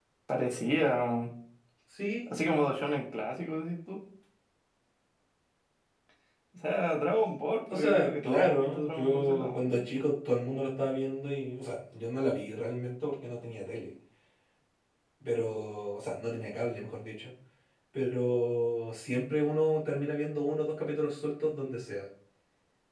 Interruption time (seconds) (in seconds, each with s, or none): 7.7 s